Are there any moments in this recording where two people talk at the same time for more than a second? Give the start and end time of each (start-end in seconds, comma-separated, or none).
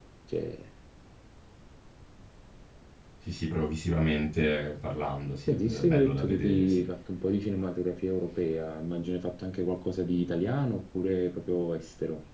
5.5-6.8